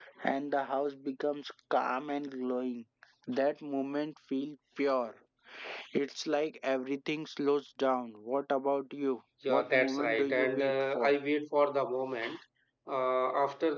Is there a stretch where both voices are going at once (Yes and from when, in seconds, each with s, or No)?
Yes, from 9.4 s